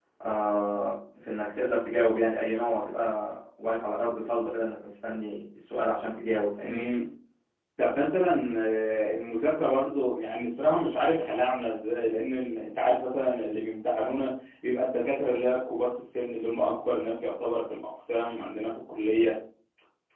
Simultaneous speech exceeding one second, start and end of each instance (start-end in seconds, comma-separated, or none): none